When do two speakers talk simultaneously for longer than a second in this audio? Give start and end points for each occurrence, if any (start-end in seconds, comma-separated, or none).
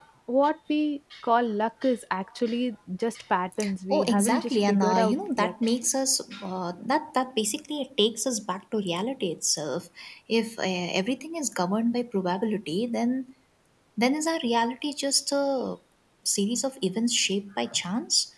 3.9-5.5